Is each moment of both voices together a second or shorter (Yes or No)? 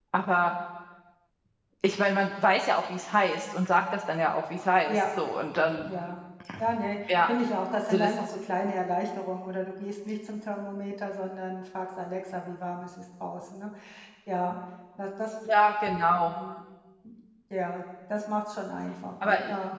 Yes